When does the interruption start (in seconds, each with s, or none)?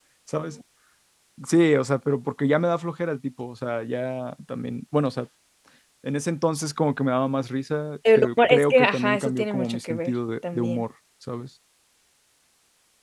8.1 s